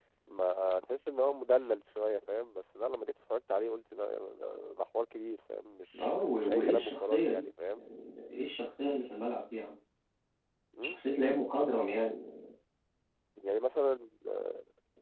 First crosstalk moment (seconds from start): 5.9 s

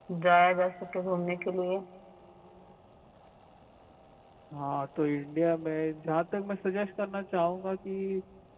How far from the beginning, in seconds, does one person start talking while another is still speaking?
none

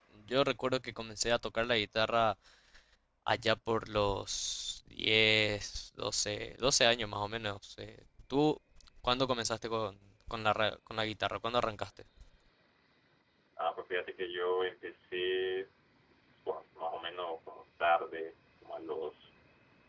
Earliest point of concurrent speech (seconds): none

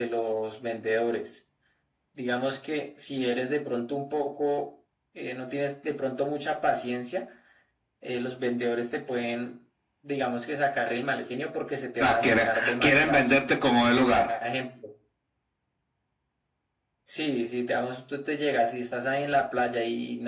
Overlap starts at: 12.0 s

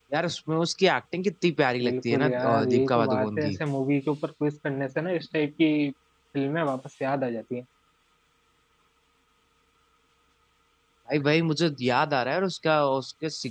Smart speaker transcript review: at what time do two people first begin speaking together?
1.8 s

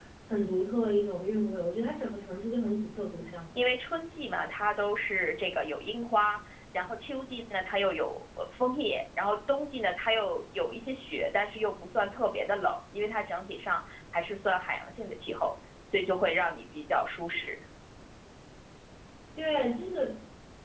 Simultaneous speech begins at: none

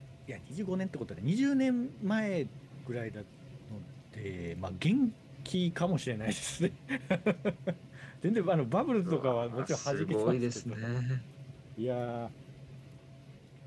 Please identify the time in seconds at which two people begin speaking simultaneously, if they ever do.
9.1 s

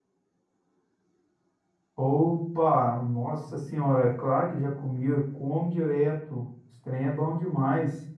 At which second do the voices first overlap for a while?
none

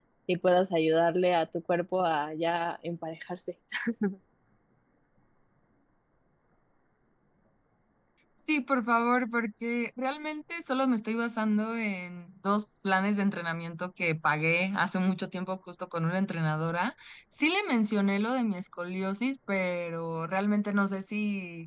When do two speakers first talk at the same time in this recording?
none

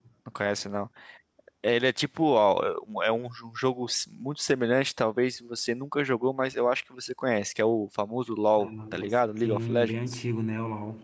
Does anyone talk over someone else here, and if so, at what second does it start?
8.6 s

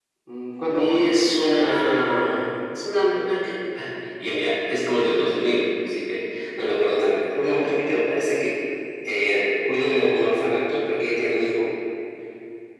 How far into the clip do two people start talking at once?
0.7 s

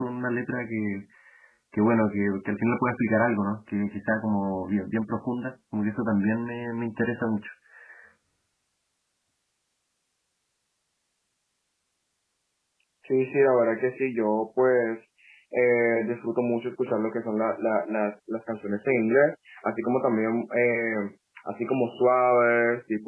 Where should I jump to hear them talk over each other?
none

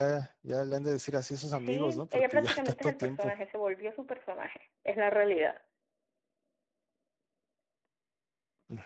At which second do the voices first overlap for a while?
1.5 s

